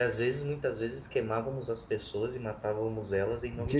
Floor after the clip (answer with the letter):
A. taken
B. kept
A